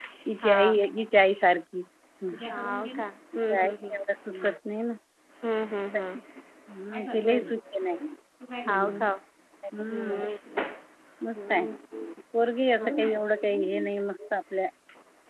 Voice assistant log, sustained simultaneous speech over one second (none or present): present